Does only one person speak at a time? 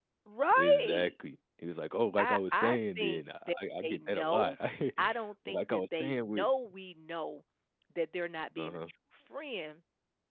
No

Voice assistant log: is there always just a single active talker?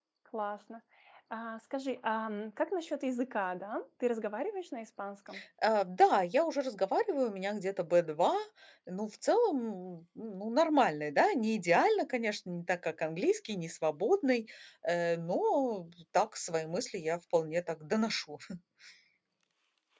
Yes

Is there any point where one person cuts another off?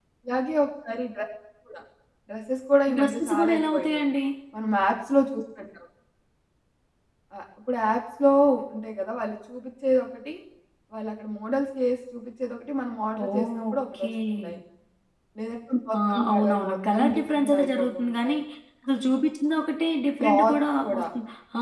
Yes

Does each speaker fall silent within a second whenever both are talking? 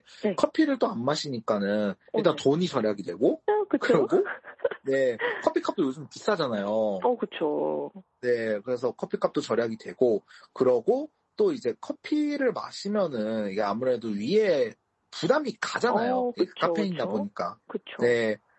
No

